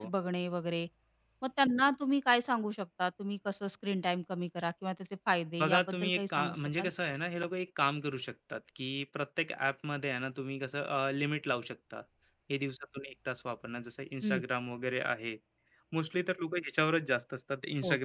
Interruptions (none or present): present